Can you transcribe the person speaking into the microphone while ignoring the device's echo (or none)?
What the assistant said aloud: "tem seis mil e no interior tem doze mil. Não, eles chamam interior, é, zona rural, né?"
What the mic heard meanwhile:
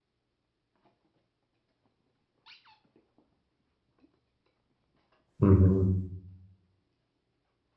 Uhum.